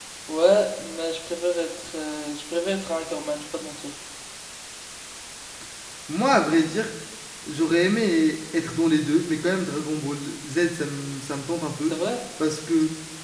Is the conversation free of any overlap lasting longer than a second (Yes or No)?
Yes